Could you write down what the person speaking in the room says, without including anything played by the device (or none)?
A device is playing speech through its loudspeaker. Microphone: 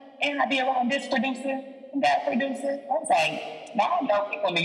none